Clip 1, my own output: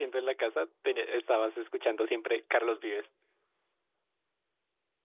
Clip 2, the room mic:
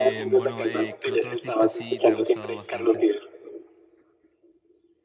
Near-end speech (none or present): present